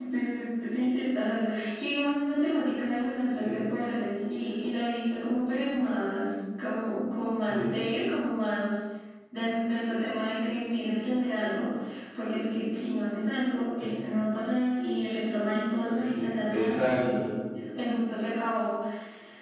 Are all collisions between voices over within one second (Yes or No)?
No